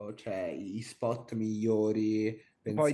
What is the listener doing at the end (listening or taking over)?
taking over